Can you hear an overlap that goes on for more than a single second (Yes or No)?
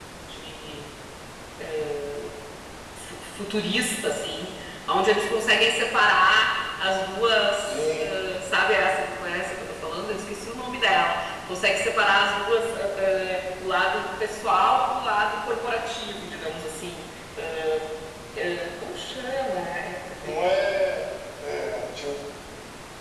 No